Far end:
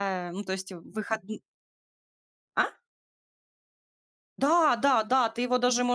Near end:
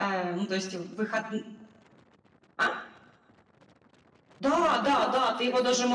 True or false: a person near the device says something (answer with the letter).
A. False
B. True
B